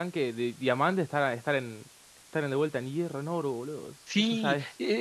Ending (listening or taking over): taking over